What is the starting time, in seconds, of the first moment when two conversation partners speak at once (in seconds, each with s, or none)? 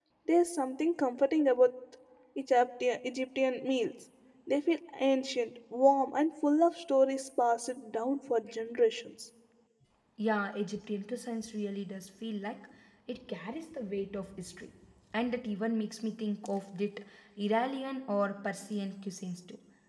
none